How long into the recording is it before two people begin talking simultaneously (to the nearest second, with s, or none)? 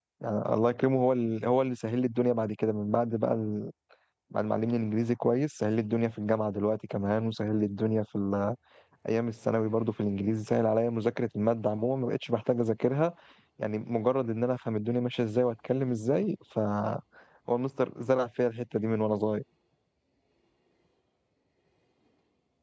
none